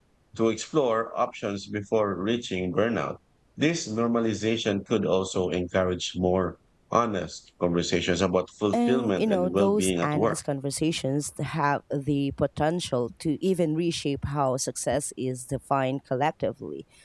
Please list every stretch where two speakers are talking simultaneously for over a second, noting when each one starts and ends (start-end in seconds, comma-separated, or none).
8.7-10.4